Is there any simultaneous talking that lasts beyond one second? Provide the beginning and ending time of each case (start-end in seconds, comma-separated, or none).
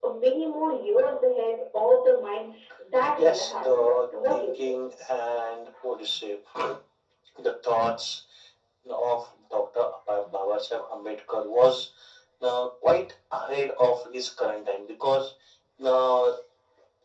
3.1-4.8